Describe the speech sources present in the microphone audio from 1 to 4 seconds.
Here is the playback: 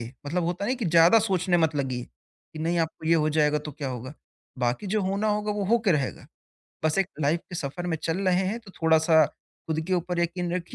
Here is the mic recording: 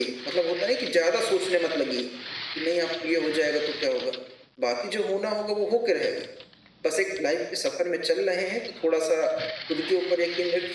echo only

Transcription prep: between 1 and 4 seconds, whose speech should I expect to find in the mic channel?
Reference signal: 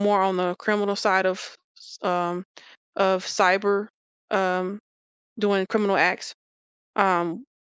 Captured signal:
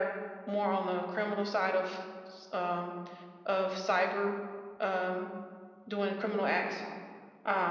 echo only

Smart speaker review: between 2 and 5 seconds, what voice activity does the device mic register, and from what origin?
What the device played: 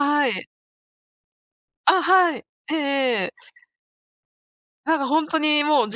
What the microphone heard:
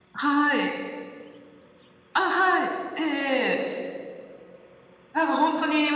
echo only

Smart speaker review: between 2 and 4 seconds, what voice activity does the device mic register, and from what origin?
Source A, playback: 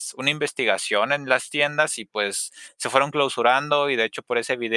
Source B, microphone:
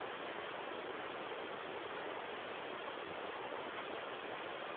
neither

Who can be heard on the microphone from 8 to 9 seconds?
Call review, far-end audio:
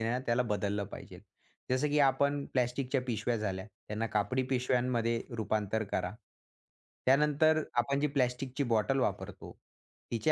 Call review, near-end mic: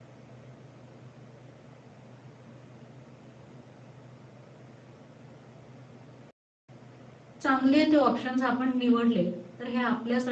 user only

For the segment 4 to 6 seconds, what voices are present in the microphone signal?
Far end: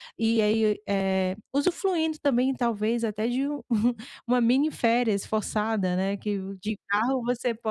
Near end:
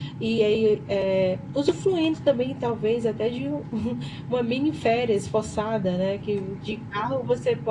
echo only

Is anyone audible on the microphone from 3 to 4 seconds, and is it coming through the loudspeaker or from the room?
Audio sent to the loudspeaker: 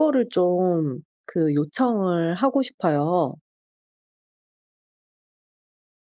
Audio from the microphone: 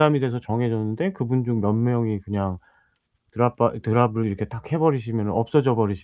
user only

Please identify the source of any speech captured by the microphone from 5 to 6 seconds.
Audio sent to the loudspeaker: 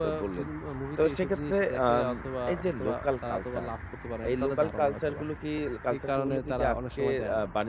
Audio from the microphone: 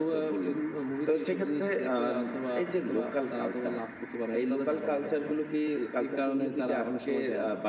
echo only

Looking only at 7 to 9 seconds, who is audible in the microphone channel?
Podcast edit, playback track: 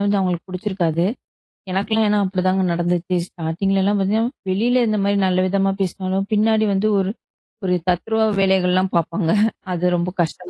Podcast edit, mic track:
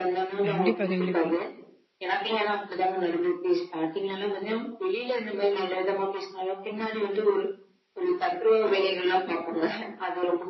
echo only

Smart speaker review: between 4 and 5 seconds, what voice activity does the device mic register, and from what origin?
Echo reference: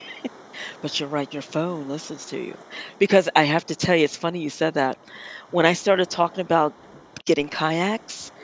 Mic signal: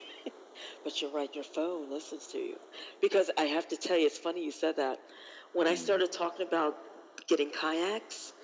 echo only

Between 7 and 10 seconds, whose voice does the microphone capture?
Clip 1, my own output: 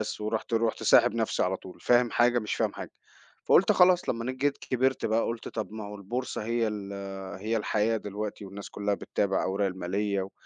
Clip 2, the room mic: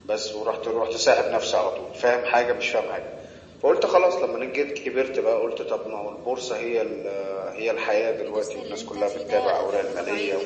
both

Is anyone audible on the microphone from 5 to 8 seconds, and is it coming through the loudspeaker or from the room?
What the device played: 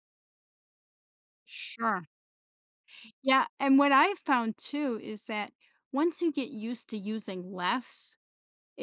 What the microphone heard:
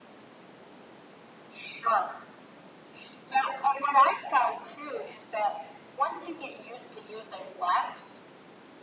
echo only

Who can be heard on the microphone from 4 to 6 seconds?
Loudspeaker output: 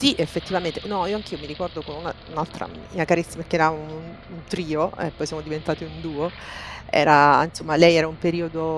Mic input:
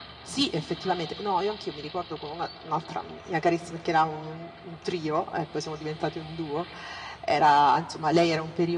echo only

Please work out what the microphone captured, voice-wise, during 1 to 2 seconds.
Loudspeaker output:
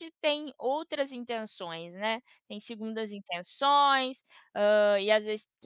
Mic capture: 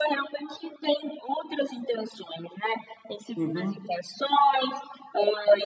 echo only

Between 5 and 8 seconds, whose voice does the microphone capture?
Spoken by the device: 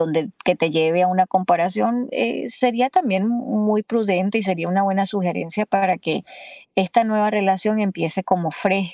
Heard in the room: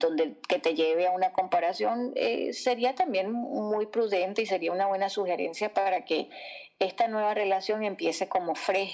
echo only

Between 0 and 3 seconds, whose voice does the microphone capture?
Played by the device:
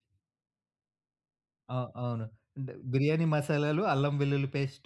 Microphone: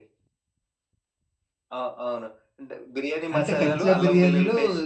echo only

